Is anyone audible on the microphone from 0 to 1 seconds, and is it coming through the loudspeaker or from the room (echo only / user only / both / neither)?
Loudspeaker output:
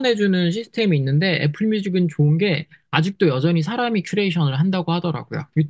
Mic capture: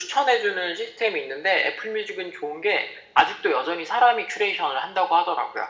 echo only